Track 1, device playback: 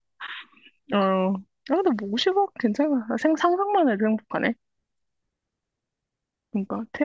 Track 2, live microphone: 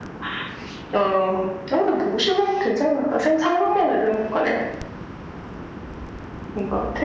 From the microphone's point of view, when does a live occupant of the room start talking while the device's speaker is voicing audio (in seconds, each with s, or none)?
none